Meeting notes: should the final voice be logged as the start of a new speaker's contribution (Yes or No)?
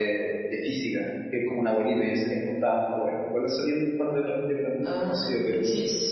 Yes